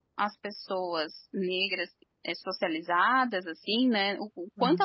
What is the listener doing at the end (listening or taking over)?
listening